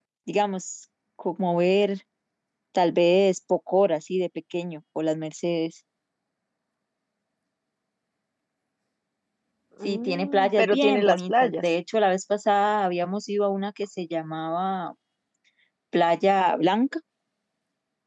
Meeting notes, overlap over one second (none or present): present